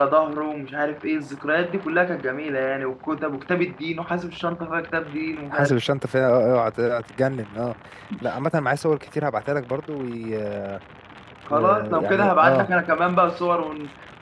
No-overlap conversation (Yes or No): No